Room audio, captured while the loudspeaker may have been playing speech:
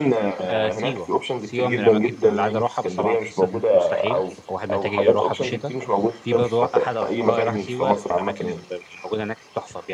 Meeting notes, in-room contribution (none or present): present